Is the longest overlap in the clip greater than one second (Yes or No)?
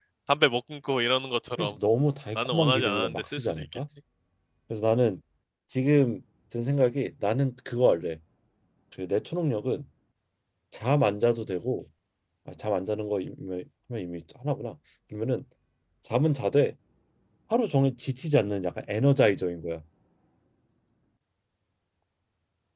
Yes